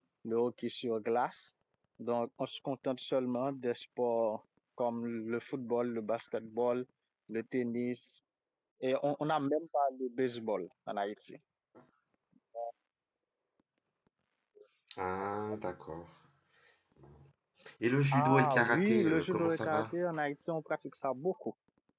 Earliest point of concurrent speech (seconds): 18.1 s

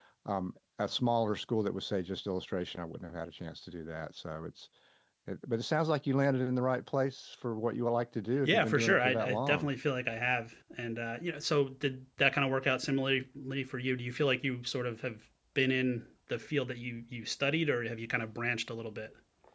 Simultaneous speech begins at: 8.4 s

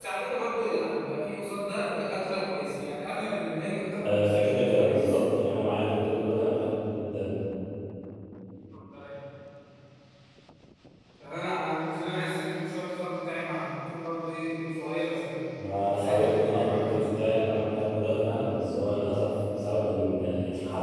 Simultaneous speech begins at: 4.0 s

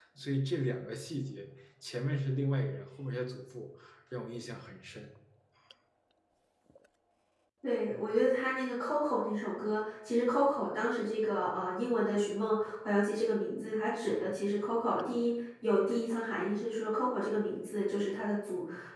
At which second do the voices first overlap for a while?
none

